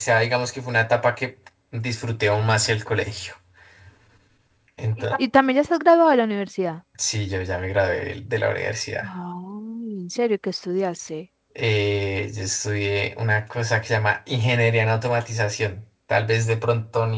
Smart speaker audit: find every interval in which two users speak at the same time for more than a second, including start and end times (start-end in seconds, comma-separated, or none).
none